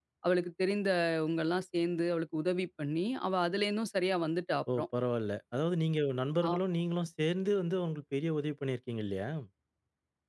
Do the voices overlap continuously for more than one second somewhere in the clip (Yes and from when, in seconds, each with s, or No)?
No